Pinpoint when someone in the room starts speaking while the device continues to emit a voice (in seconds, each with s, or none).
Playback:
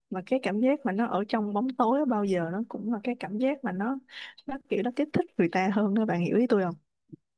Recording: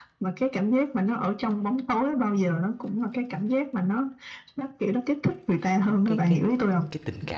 5.8 s